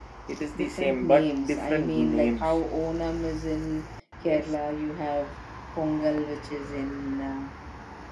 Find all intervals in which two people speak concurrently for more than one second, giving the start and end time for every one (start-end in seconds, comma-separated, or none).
0.6-2.6